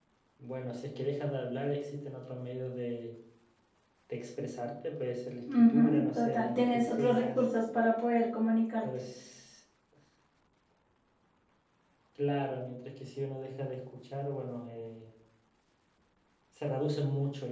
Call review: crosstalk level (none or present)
present